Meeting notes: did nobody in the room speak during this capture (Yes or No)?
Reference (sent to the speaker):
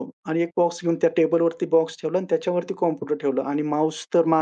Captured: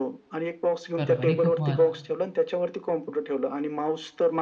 No